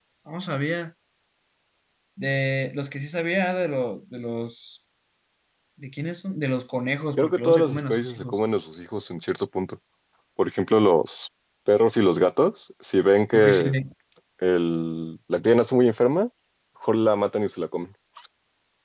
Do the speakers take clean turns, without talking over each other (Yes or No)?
No